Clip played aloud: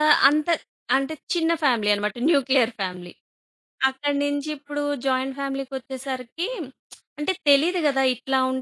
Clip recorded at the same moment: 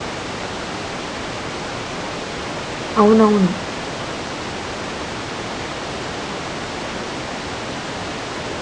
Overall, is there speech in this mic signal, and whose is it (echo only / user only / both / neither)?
user only